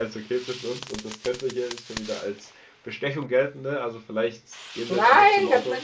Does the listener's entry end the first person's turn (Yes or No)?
Yes